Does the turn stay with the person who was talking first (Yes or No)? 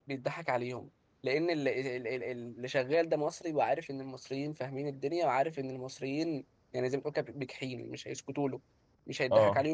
Yes